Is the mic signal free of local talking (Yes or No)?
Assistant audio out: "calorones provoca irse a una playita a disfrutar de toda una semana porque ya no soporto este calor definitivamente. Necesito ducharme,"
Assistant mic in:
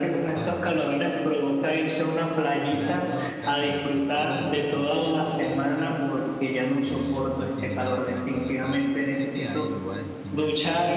No